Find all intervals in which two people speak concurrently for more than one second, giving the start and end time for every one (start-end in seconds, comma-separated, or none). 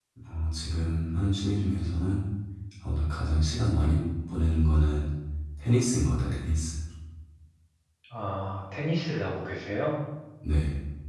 none